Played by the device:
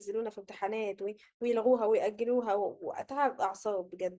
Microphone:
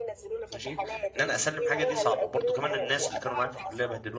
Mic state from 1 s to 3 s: both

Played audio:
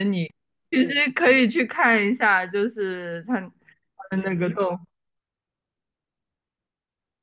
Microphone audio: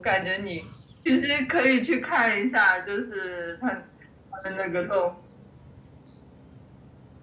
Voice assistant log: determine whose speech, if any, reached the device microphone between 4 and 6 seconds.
echo only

